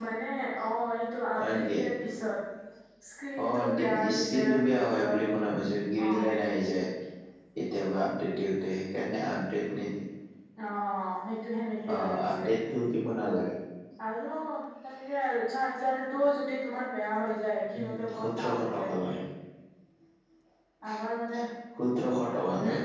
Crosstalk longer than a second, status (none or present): present